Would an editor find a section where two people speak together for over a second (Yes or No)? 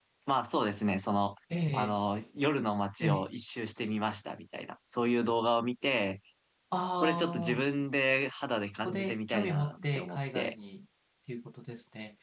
Yes